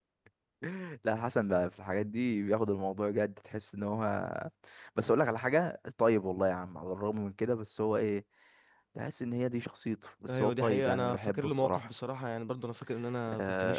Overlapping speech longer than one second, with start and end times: 10.3-11.9

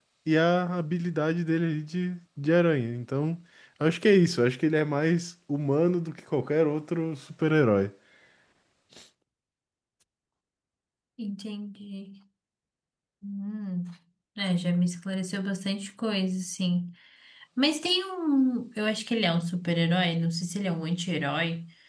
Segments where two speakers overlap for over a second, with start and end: none

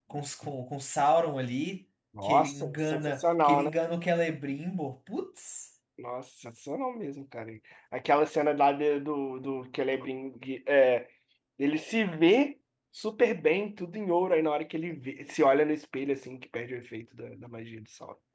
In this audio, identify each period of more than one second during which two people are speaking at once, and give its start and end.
2.2-3.7

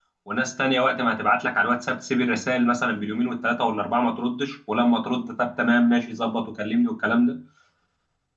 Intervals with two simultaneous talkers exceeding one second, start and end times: none

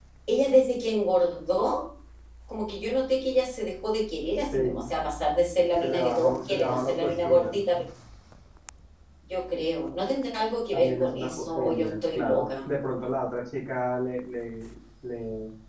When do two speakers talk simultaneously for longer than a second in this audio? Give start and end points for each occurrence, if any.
5.8-7.6, 10.7-12.5

